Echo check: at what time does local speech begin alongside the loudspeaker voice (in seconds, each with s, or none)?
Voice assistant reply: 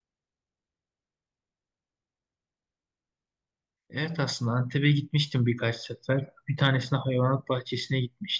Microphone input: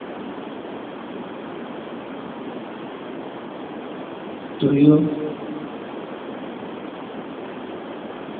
4.6 s